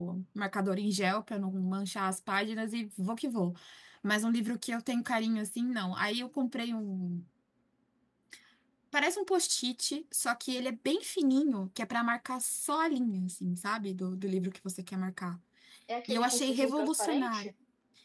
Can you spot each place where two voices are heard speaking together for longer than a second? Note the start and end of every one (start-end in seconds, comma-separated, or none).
16.1-17.5